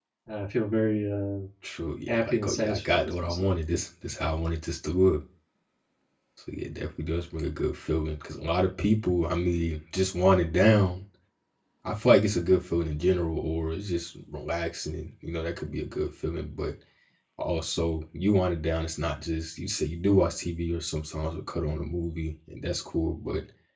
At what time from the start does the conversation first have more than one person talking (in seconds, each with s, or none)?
2.1 s